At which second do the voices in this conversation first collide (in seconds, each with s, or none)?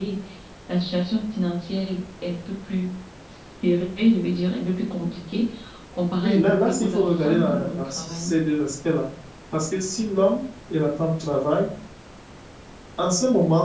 6.2 s